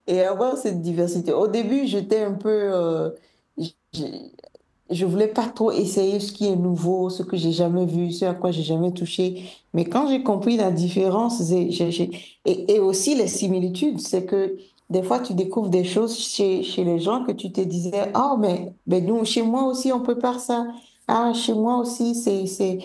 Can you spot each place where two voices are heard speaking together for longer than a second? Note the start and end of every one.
none

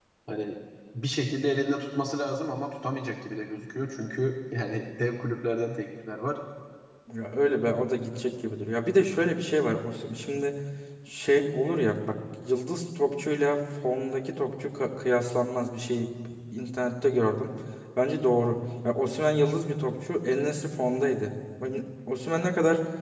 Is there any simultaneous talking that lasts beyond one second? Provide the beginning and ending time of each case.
none

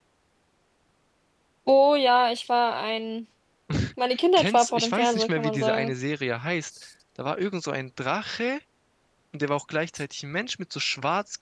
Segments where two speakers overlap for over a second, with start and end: 4.4-5.9

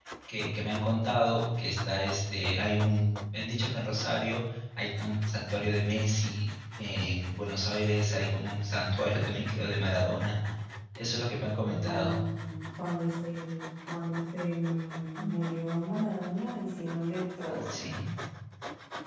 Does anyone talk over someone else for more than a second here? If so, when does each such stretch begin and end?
none

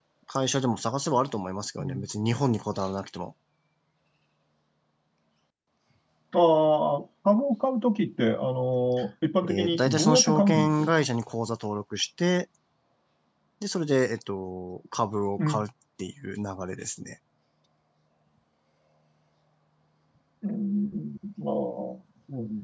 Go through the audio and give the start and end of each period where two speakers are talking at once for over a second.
9.5-10.9

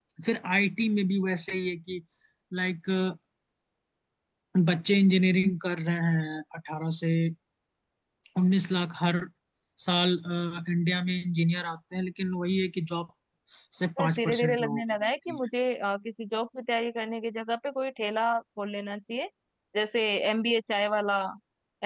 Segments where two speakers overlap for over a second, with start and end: 14.0-15.4

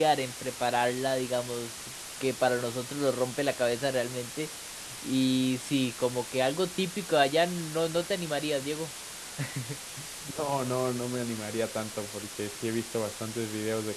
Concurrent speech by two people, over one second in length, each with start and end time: none

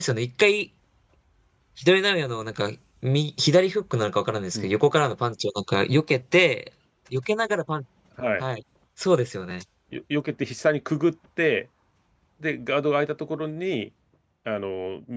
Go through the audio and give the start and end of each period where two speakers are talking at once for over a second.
none

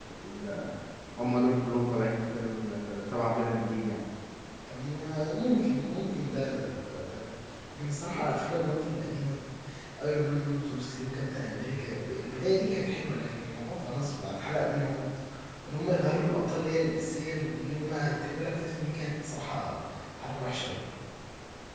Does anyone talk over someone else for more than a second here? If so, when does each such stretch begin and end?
none

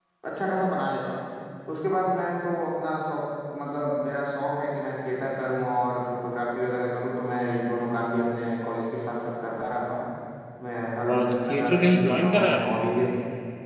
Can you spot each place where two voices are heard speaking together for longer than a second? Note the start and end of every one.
11.1-12.8

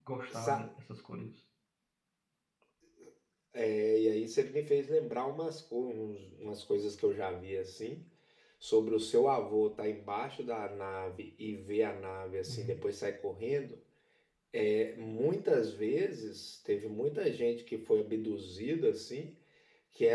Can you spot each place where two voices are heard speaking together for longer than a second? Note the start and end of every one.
none

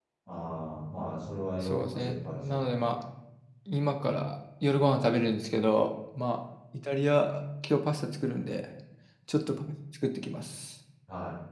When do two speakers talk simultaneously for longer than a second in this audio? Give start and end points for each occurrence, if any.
1.6-2.9

